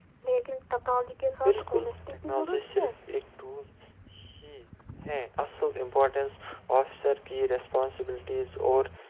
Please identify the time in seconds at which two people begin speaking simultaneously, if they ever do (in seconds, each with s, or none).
1.4 s